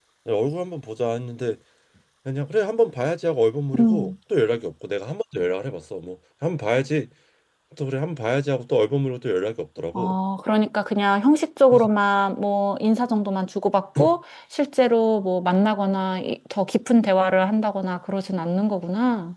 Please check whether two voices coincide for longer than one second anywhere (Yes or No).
No